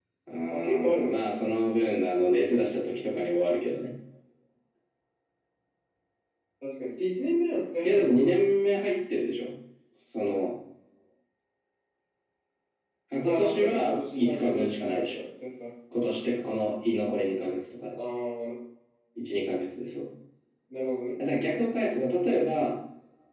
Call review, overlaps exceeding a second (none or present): present